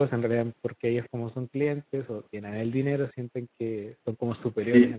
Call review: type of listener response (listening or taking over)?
taking over